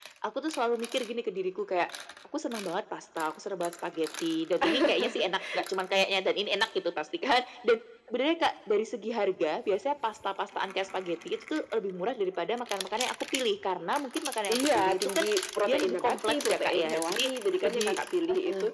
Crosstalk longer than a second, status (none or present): present